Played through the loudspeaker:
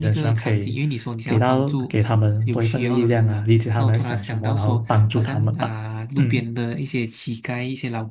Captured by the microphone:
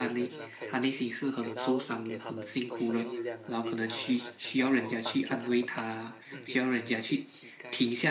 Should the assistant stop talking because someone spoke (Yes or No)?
Yes